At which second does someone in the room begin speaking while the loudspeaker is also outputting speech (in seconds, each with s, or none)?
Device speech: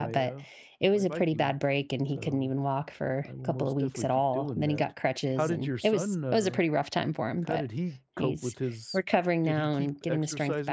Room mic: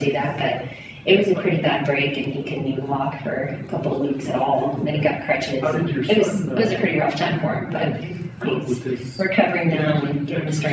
none